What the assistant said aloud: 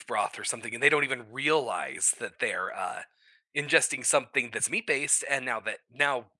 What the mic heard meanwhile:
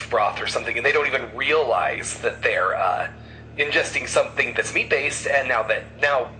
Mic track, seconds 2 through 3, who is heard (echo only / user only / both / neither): echo only